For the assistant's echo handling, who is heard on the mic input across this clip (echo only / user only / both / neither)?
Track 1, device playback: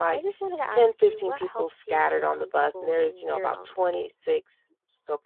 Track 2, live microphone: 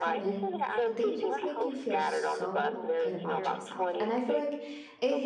both